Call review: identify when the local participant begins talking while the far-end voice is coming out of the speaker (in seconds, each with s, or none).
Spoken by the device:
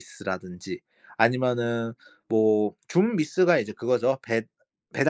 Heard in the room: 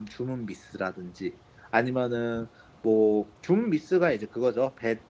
none